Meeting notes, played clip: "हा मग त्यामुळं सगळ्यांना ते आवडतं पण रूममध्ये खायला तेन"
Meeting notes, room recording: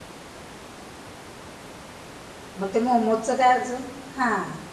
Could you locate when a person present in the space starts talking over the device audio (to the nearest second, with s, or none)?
3 s